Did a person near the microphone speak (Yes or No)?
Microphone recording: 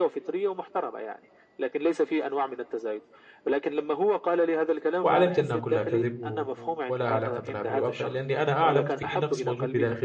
Yes